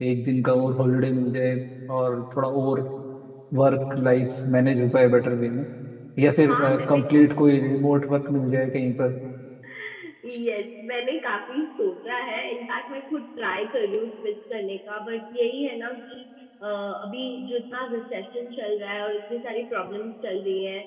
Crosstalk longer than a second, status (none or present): none